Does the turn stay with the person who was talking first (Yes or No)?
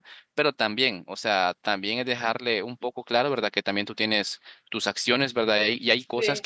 Yes